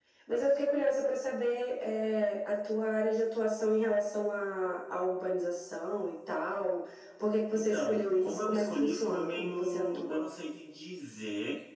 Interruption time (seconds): 7.5 s

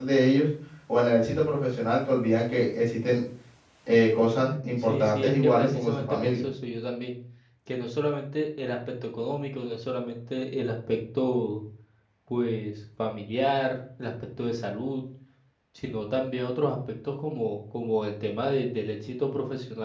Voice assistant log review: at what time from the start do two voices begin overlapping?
4.8 s

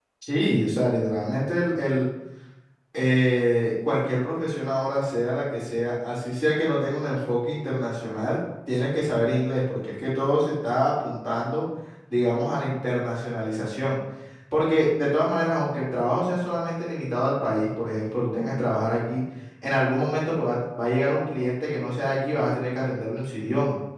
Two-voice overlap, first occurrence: none

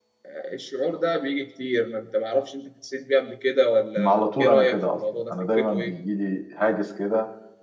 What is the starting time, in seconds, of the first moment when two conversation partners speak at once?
4.0 s

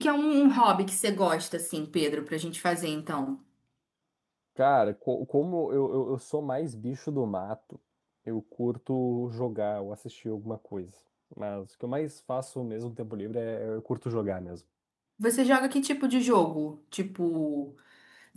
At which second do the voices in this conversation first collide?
none

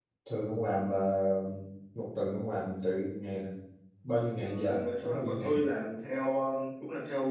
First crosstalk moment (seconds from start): 4.3 s

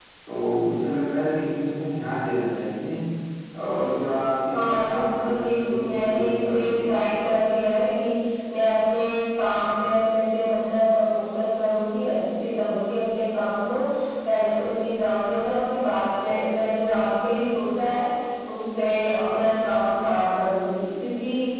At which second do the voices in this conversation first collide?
4.5 s

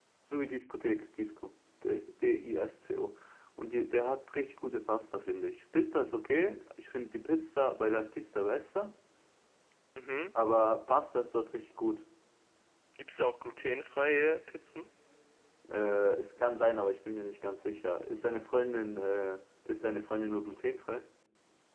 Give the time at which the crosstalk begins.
none

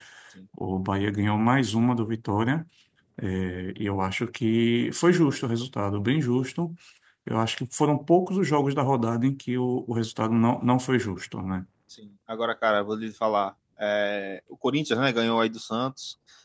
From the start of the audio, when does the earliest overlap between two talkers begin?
none

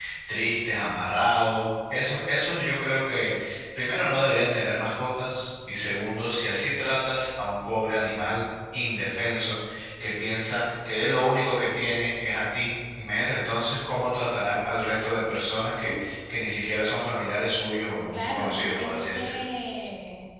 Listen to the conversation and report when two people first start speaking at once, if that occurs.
18.1 s

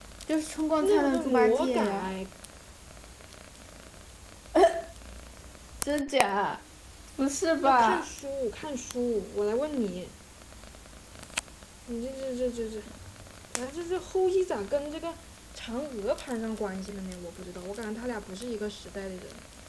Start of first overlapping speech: 0.8 s

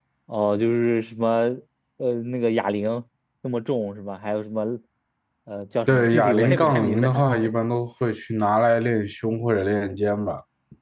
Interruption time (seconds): 5.9 s

